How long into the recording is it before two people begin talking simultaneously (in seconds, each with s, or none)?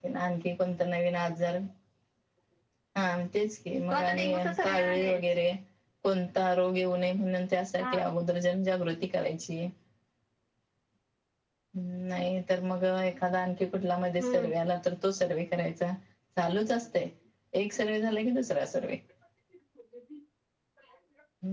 3.9 s